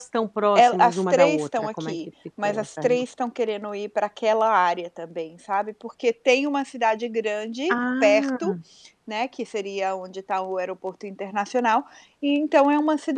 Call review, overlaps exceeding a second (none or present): present